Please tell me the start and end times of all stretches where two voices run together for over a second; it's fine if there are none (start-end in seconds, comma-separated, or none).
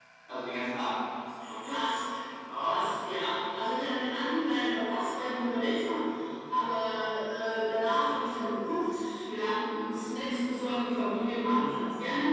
none